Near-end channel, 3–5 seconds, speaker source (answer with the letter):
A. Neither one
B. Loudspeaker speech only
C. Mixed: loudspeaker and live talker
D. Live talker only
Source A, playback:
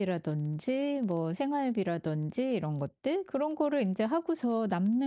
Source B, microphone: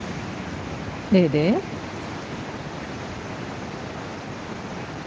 A